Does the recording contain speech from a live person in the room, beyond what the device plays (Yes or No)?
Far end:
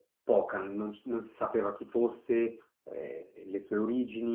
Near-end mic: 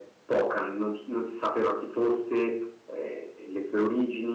No